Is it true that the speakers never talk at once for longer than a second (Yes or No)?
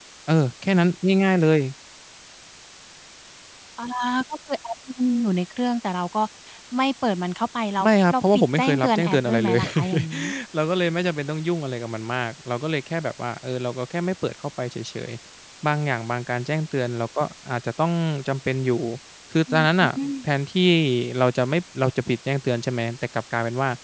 No